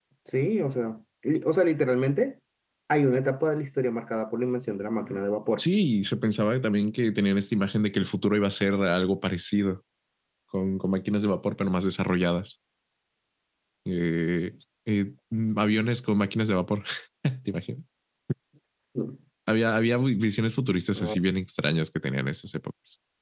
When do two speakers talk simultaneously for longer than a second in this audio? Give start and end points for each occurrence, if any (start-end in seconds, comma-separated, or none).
none